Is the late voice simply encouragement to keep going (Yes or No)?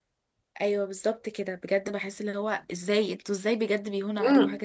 No